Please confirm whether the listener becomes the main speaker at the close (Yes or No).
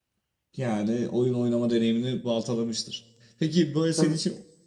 No